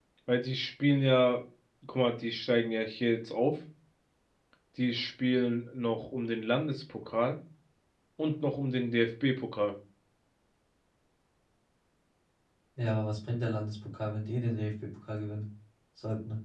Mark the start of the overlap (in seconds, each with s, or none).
none